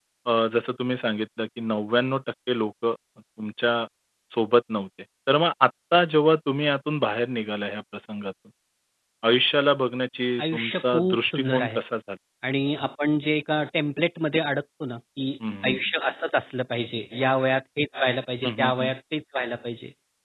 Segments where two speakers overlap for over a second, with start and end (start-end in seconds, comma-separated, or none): 10.4-11.8